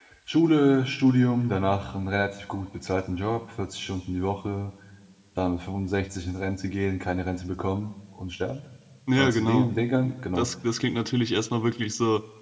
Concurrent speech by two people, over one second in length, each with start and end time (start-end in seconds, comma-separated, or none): 9.2-10.5